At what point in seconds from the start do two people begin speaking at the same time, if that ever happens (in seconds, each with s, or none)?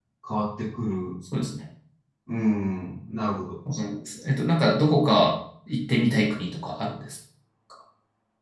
none